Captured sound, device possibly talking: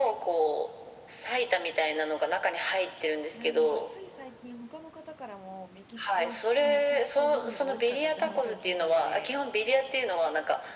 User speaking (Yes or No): Yes